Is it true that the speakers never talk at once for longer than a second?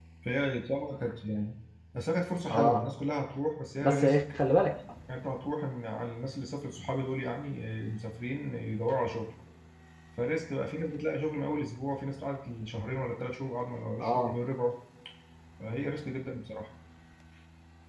Yes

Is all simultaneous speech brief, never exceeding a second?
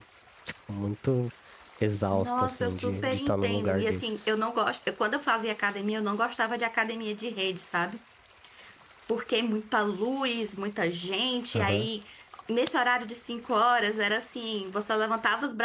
No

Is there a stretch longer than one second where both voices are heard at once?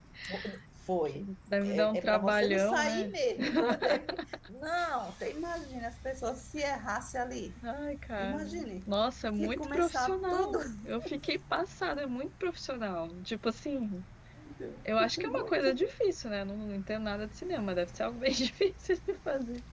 Yes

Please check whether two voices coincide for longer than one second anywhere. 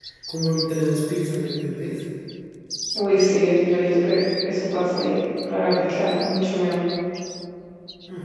No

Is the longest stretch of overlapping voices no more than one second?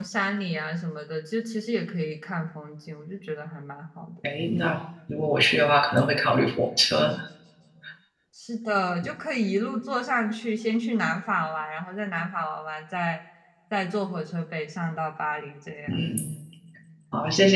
Yes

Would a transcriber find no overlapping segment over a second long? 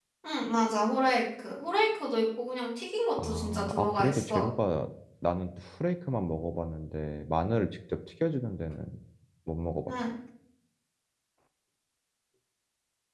No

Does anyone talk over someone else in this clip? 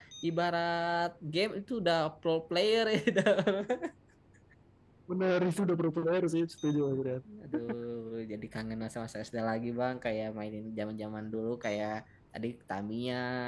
No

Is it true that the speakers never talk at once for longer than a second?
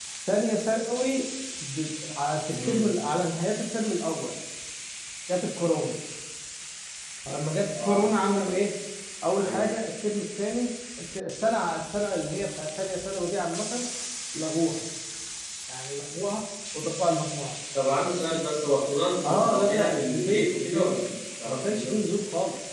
No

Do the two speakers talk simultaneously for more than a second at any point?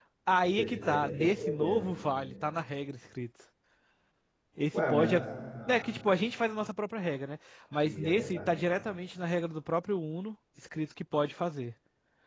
Yes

